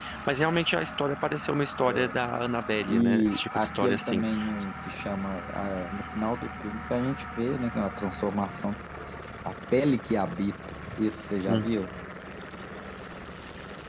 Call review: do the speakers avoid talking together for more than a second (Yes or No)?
No